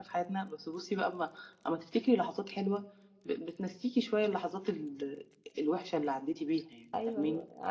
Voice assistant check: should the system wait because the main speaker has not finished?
No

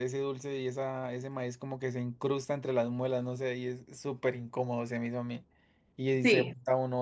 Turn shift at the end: No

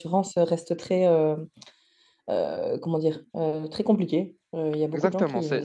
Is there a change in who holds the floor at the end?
Yes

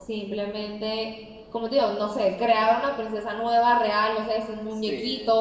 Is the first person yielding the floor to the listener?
Yes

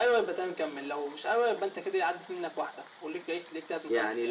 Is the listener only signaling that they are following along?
No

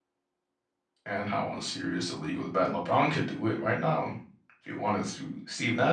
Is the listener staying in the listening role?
No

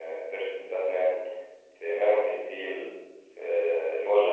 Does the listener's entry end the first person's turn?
No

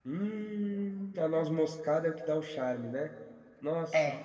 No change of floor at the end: Yes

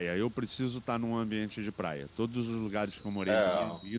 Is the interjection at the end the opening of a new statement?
No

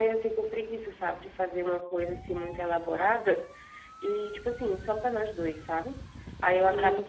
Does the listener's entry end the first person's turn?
No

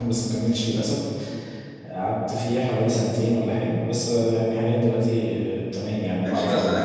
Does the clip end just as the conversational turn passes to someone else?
Yes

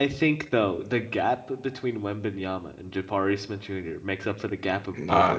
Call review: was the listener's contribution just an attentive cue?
No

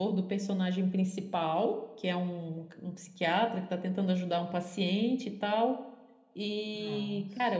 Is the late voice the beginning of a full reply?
No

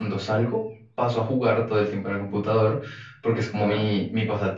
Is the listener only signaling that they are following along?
Yes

